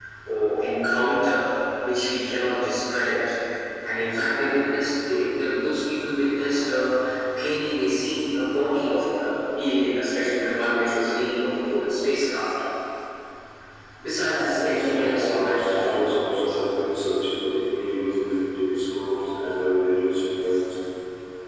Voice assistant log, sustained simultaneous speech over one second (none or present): present